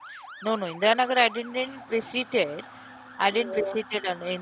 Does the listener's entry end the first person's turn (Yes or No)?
No